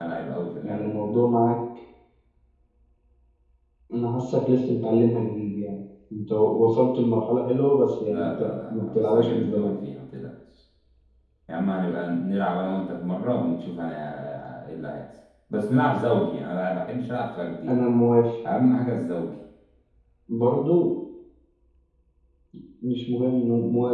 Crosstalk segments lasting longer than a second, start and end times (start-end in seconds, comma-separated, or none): 8.0-9.7